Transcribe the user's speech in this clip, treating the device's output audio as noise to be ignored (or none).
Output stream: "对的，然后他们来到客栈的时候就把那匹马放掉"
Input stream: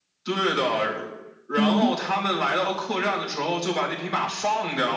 嗯